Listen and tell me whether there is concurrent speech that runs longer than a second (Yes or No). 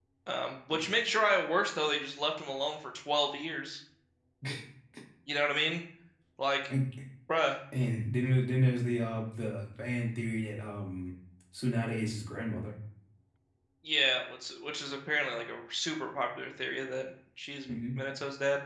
No